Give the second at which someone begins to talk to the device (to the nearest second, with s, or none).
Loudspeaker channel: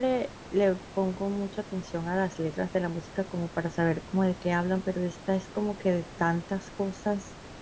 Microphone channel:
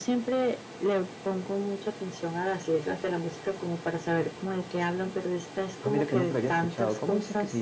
6 s